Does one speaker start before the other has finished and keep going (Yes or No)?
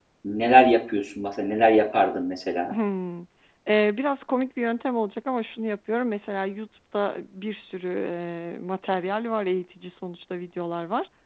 No